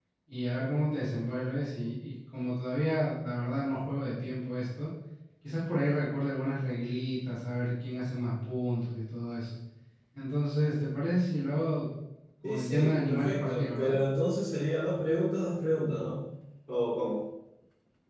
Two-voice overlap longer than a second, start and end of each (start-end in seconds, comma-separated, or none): 12.4-14.0